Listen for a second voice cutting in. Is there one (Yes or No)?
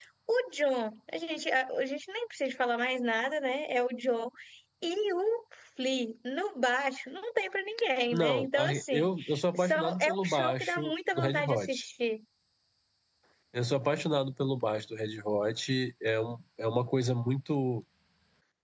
Yes